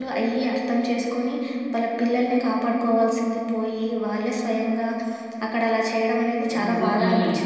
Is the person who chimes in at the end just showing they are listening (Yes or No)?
No